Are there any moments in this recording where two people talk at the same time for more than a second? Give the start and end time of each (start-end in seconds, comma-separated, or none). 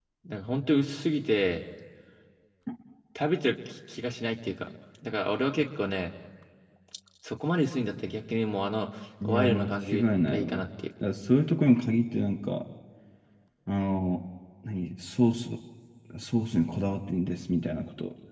9.2-10.7